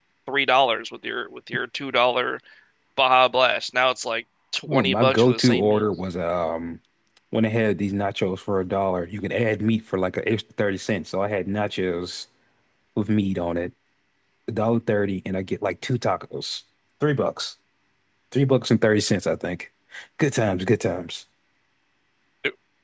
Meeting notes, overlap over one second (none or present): present